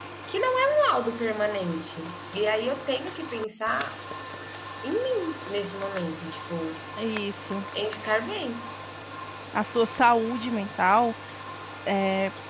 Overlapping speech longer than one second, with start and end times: none

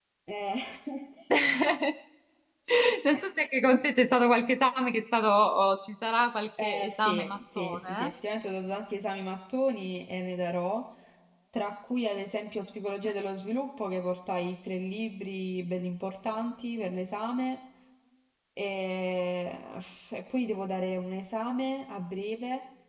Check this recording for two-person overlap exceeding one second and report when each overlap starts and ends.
6.6-8.1

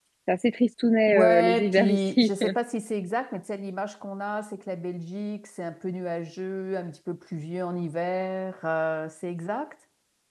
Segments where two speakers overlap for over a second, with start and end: 1.1-2.3

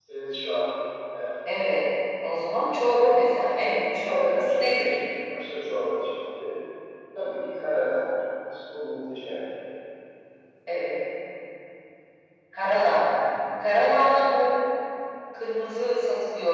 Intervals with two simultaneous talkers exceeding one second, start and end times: 3.6-4.9

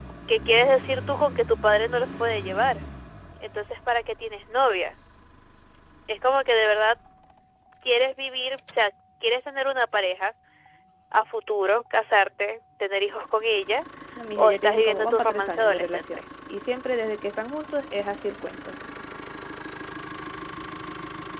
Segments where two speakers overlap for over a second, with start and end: 14.4-16.2

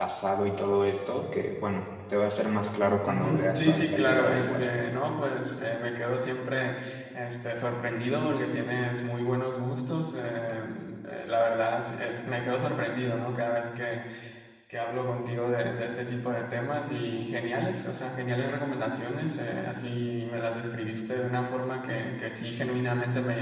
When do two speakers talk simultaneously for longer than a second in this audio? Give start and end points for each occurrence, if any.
3.1-4.6

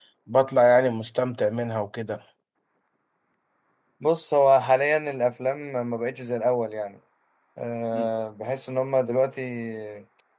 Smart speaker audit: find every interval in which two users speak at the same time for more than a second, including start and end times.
none

